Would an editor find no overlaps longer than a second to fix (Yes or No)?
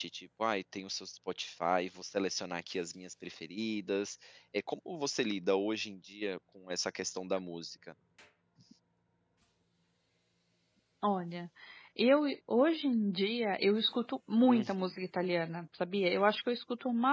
Yes